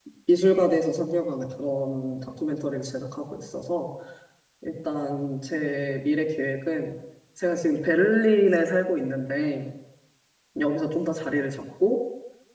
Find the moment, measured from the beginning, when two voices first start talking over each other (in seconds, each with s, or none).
none